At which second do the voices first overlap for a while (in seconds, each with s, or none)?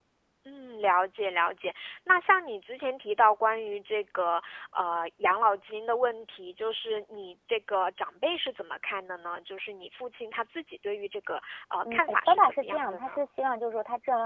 11.8 s